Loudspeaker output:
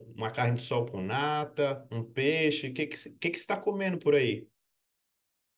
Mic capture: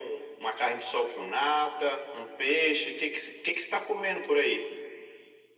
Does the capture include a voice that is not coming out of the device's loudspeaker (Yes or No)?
No